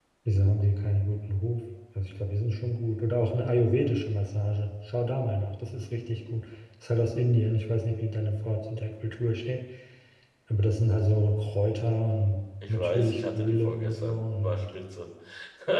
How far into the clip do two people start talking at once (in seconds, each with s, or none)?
12.6 s